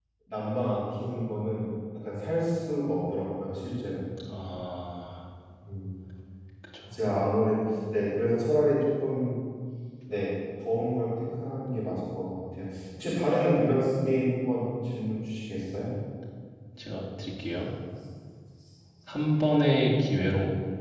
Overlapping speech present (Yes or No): No